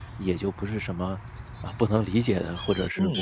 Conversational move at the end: taking over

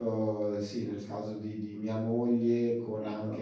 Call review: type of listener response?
listening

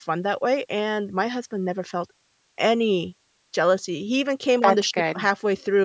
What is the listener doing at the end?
listening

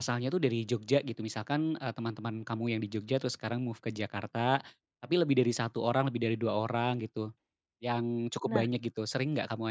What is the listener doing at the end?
listening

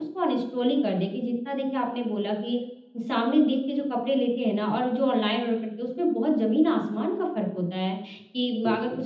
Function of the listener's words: listening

